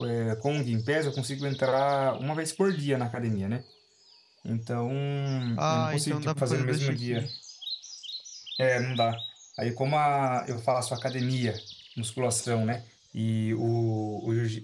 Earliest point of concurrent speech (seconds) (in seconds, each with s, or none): 5.7 s